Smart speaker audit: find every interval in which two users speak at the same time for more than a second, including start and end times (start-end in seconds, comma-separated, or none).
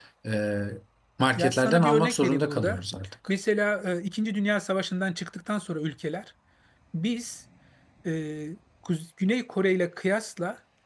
1.4-2.8